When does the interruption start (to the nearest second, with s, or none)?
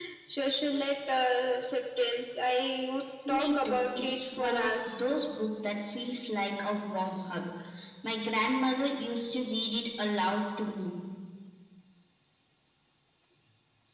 3 s